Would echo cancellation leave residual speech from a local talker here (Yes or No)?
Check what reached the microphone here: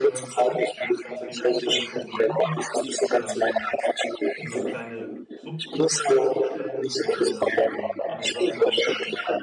Yes